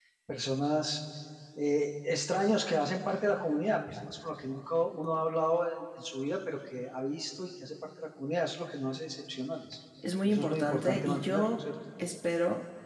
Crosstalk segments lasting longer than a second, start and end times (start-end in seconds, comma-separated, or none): 10.2-11.6